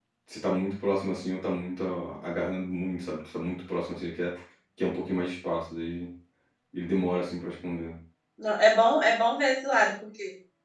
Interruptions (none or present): none